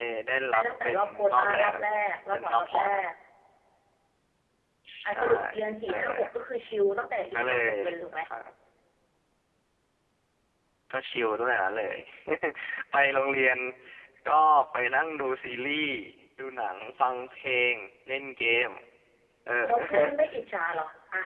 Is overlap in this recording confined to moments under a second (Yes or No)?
No